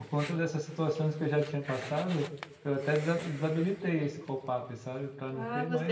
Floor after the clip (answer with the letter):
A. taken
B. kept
A